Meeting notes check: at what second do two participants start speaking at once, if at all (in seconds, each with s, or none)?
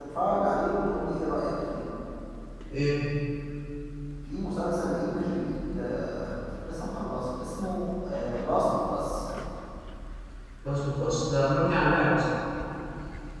none